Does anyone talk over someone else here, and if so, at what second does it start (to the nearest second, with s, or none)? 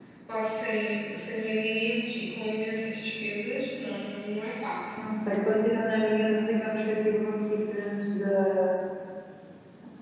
none